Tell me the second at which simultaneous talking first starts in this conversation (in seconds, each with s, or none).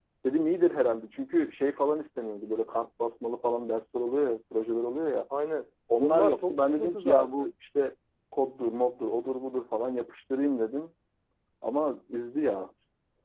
6.0 s